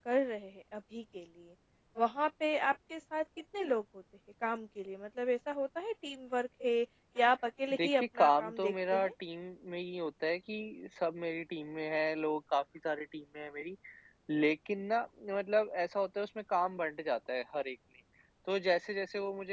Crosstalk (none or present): present